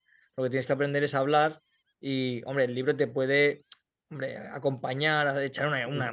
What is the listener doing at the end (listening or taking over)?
listening